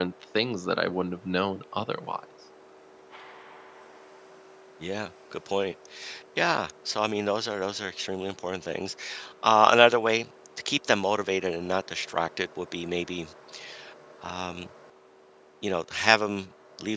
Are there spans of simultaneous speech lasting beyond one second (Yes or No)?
No